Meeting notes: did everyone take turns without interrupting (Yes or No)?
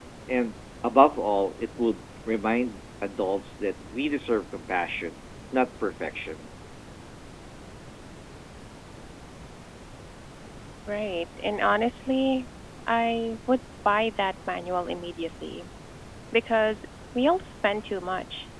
Yes